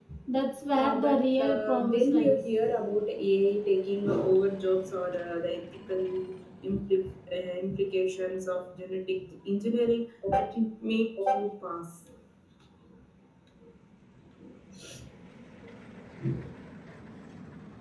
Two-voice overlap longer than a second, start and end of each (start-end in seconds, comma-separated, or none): 0.7-2.4